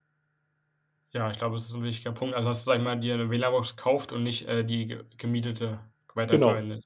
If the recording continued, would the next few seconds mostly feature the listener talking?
Yes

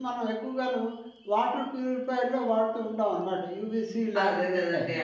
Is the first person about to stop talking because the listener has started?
Yes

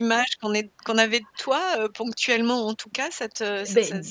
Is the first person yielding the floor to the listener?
Yes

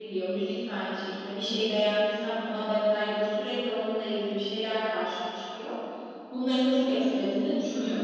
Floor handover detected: Yes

